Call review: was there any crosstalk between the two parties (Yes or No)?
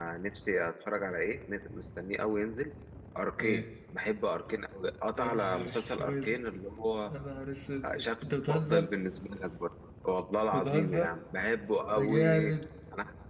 Yes